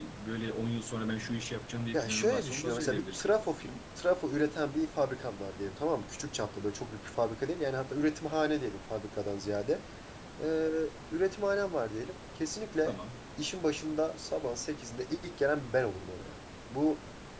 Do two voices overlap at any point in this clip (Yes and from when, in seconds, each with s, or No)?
Yes, from 1.9 s